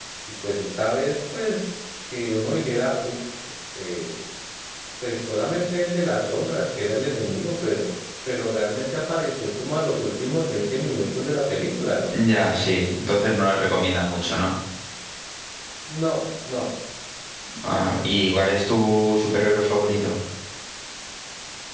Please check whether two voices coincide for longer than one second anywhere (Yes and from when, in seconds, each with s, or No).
No